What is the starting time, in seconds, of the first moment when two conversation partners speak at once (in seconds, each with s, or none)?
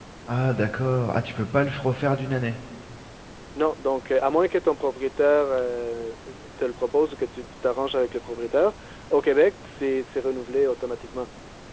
none